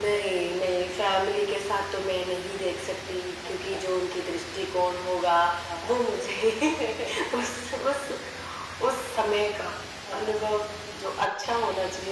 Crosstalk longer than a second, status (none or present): none